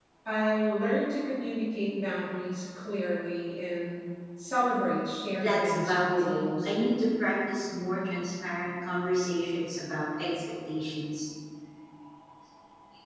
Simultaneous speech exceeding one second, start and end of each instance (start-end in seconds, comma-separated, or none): 5.3-6.7